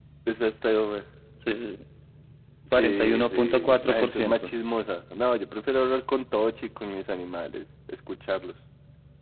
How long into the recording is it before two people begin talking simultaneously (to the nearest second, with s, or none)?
3 s